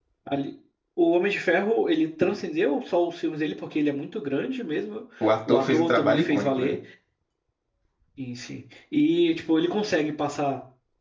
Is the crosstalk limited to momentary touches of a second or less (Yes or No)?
No